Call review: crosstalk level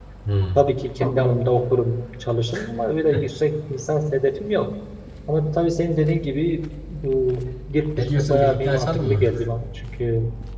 present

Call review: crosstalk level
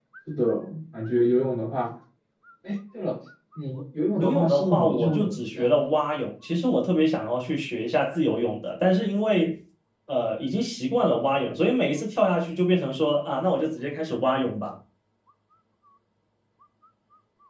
present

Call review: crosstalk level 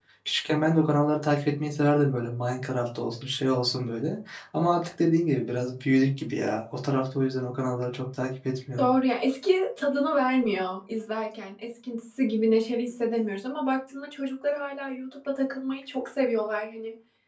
none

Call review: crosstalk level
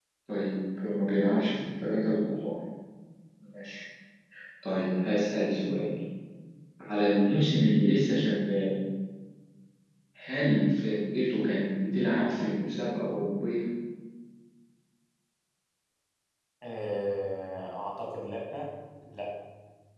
none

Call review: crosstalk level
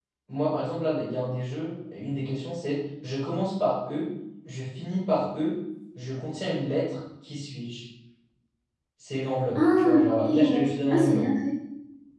present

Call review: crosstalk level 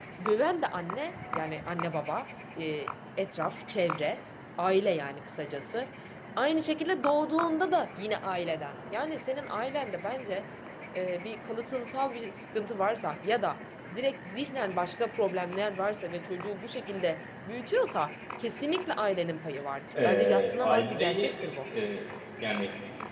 present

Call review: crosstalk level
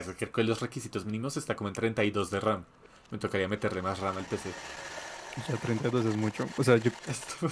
none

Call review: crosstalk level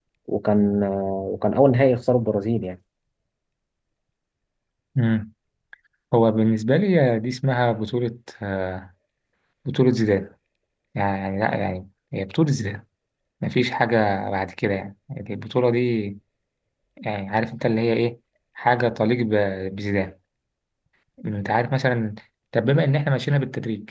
none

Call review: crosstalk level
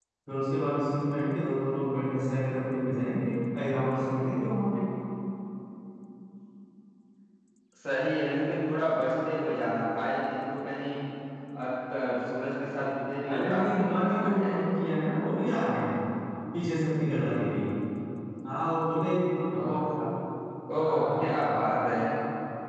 present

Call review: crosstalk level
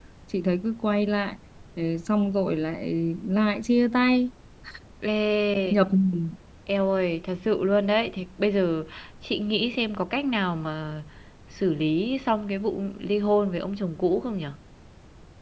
none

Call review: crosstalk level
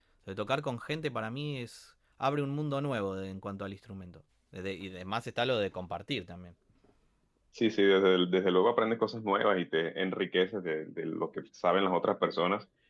none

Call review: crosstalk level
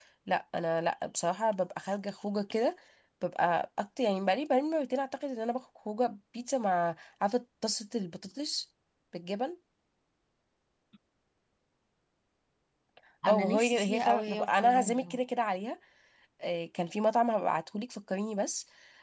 present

